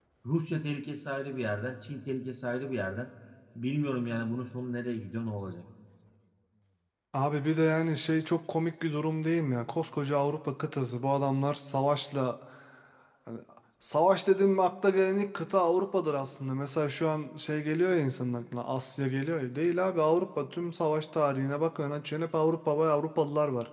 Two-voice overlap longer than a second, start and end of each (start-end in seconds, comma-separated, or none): none